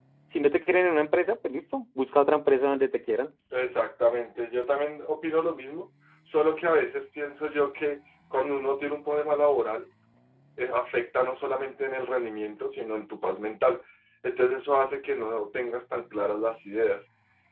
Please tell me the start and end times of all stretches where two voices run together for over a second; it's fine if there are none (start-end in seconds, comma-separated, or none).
none